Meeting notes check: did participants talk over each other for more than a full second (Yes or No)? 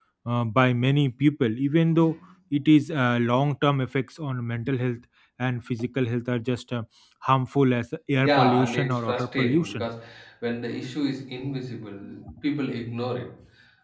Yes